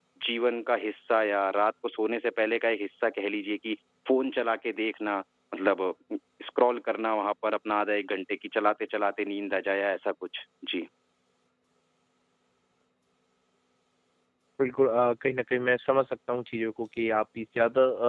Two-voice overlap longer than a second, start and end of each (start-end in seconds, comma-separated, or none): none